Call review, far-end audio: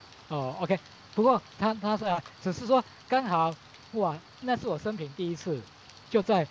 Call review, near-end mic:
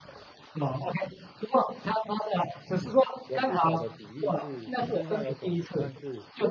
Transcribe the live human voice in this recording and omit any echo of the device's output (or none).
有不少的比例是身上有肿瘤，但是